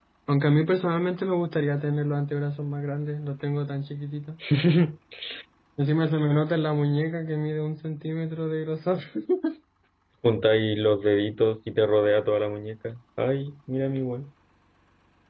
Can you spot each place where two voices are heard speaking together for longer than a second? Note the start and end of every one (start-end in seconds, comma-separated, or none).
none